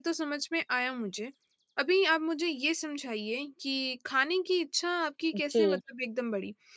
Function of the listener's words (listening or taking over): listening